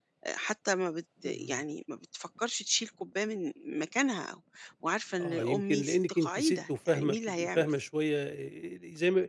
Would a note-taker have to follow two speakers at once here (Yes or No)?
Yes